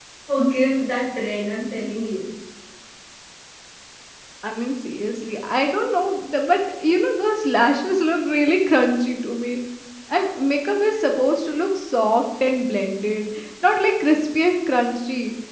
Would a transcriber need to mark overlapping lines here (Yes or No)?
No